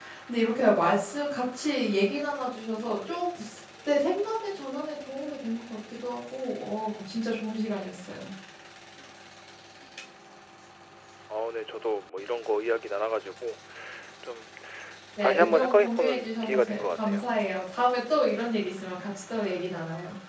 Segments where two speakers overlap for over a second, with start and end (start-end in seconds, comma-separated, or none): 15.2-17.2